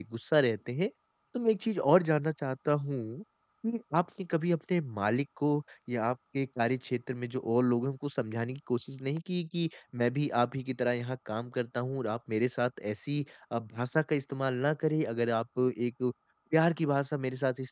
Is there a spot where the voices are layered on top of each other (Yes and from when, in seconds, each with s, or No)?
No